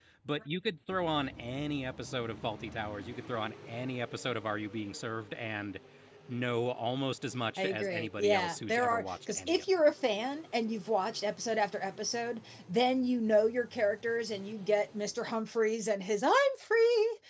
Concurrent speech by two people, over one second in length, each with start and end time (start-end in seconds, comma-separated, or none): 7.6-9.7